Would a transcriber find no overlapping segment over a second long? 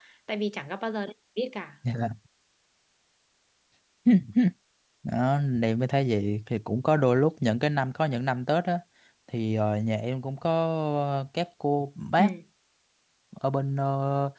Yes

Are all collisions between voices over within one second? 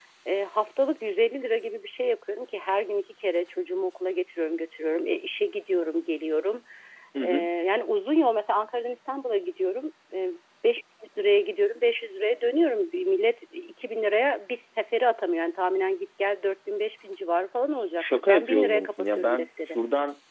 No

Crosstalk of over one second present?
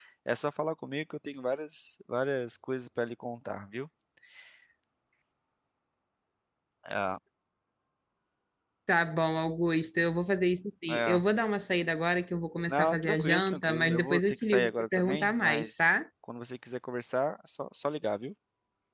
Yes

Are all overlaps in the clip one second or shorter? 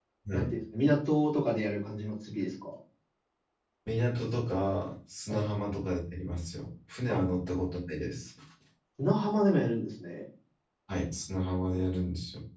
Yes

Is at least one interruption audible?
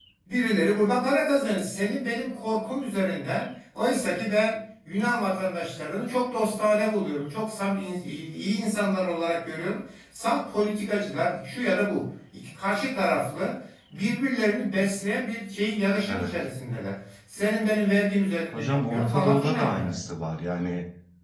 Yes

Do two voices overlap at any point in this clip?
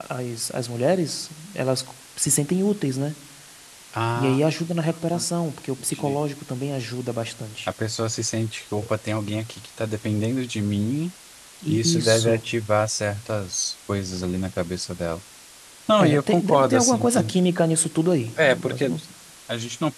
Yes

